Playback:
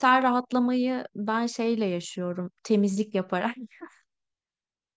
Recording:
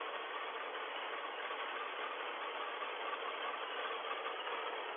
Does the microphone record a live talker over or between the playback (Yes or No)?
No